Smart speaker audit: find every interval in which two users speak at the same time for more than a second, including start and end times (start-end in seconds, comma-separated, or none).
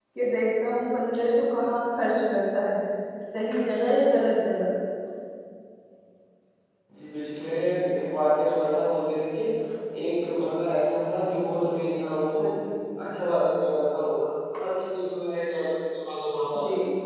none